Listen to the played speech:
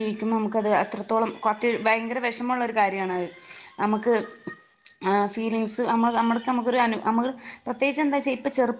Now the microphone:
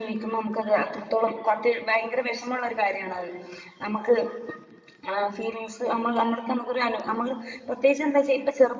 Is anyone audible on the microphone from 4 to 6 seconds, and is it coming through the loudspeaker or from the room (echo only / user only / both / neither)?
echo only